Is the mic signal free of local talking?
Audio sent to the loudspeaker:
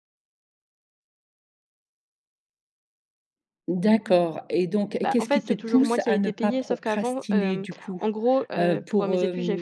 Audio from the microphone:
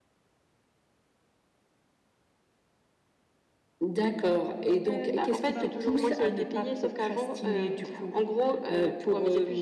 No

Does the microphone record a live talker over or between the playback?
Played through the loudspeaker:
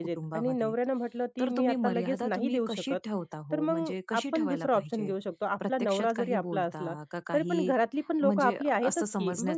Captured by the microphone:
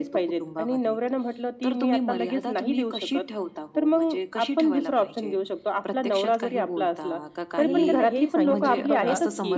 Yes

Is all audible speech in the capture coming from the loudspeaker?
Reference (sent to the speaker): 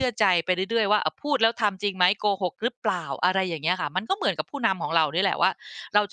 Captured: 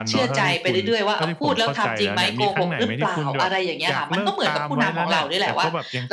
No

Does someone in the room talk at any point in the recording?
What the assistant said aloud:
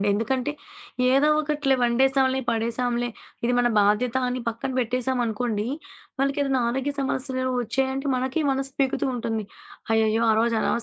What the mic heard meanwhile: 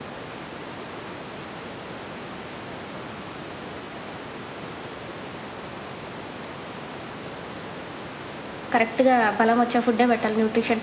Yes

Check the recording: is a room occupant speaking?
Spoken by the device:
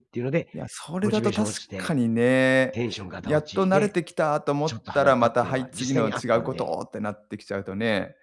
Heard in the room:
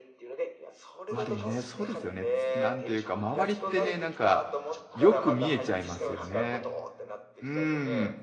Yes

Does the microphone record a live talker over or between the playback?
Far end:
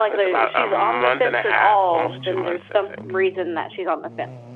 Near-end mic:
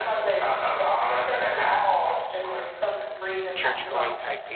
Yes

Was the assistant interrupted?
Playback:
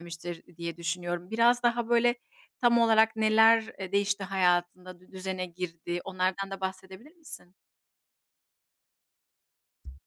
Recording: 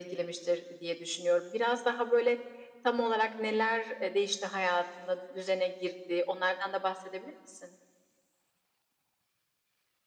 No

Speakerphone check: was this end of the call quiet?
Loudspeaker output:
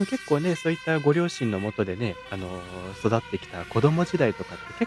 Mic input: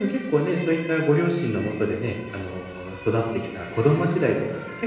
Yes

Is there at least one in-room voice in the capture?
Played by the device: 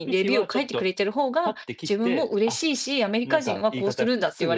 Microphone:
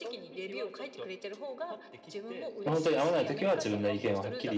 Yes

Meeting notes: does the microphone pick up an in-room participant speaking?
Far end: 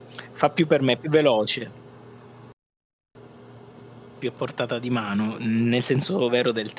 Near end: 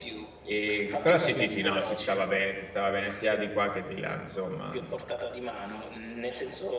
Yes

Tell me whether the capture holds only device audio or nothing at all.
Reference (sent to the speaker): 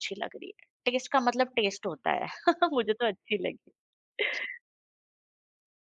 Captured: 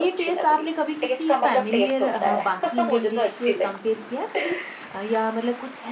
No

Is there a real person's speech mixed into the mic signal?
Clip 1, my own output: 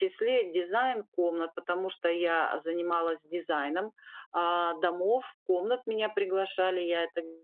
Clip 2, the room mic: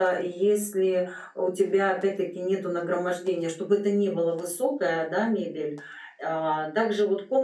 Yes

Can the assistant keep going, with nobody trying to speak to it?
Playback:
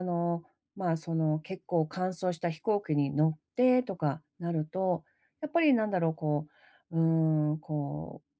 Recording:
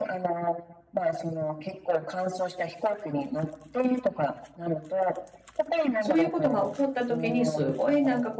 No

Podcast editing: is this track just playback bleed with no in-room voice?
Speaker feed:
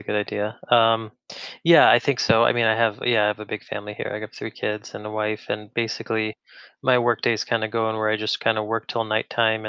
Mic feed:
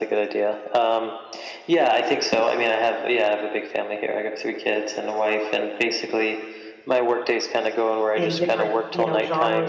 No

